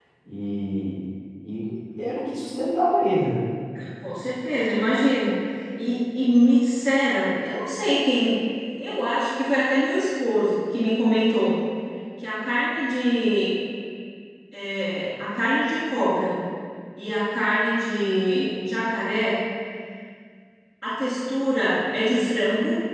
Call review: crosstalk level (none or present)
none